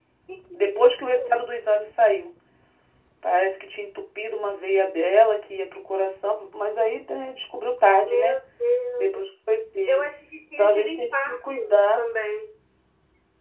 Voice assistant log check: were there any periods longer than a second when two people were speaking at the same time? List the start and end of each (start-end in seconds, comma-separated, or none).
10.6-12.0